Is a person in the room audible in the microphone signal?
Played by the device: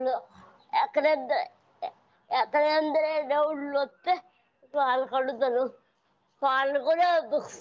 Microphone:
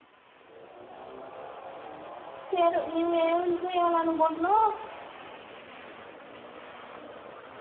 Yes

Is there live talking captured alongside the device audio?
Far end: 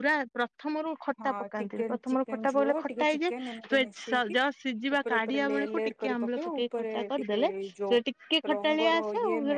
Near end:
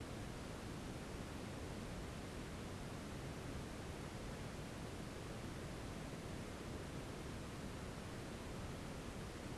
No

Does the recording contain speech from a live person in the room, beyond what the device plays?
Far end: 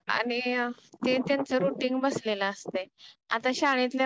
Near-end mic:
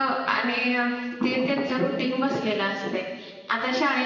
No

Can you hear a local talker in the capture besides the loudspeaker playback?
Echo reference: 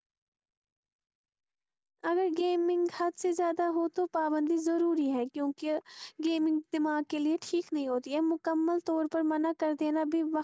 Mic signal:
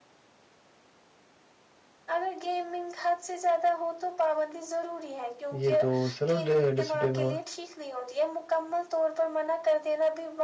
Yes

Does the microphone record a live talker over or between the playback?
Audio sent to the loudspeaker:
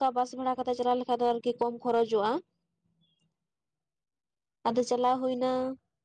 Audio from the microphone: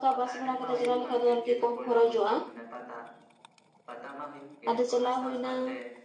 Yes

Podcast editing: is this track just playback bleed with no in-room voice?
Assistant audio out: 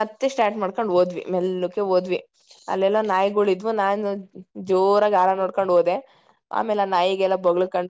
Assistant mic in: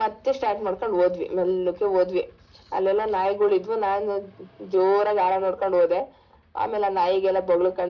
Yes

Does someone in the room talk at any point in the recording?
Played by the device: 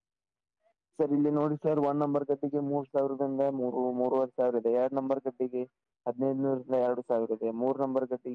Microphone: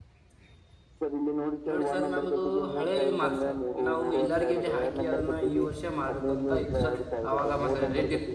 Yes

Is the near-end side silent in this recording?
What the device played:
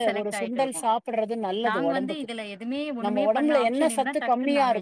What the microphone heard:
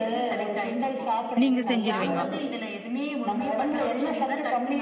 No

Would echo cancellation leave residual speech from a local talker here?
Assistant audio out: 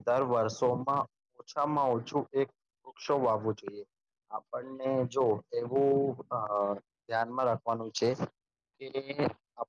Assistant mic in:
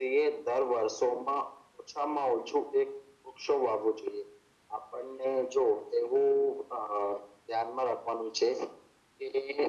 No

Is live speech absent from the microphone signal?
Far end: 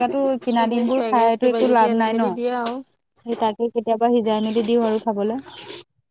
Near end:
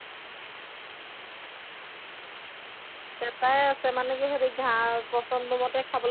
No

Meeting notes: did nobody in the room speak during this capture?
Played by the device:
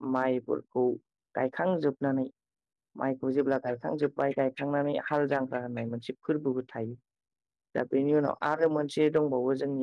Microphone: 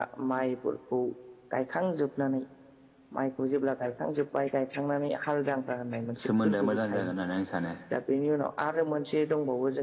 No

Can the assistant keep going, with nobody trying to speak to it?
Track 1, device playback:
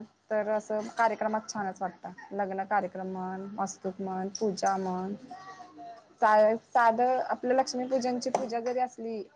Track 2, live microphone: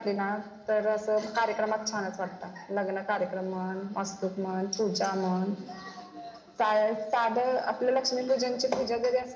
Yes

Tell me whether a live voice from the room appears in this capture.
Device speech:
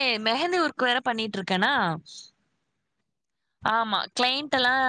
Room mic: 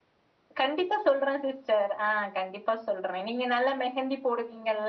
Yes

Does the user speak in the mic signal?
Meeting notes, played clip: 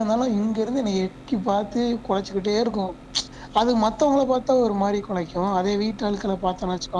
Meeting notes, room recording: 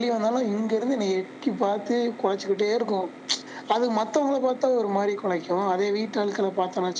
No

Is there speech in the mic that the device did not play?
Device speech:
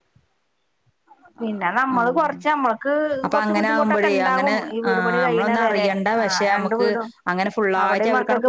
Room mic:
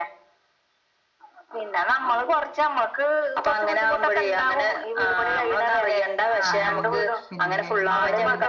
Yes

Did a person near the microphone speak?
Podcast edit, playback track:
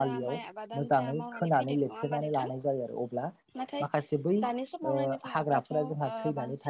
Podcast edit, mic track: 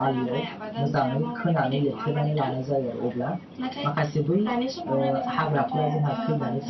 Yes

